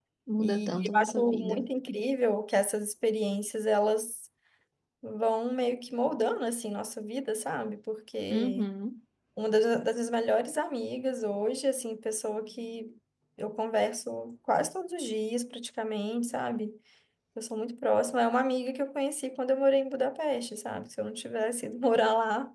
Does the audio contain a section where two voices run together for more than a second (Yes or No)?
Yes